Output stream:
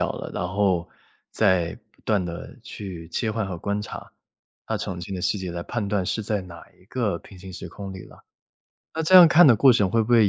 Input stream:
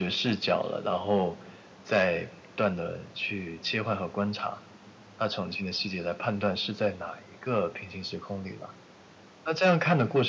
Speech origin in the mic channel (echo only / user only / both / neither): echo only